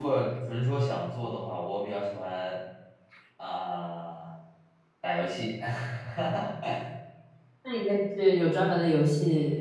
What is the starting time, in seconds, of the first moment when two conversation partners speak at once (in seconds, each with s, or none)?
none